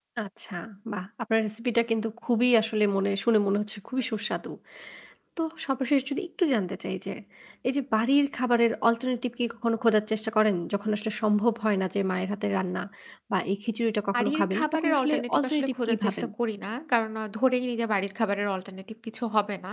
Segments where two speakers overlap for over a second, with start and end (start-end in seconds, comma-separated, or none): 14.1-16.2